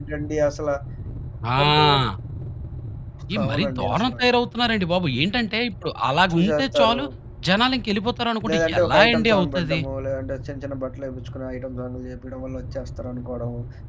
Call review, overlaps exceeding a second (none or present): present